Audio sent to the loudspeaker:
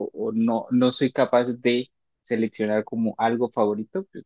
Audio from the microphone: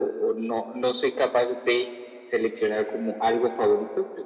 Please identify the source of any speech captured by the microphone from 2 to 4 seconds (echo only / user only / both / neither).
echo only